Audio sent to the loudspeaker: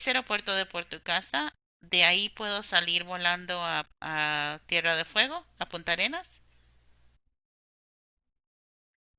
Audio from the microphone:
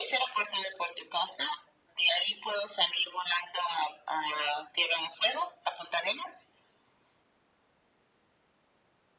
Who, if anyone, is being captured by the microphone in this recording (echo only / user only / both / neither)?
echo only